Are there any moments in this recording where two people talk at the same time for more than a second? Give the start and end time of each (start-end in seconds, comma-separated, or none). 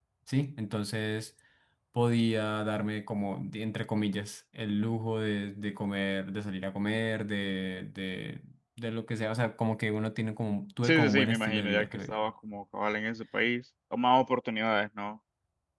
10.8-12.2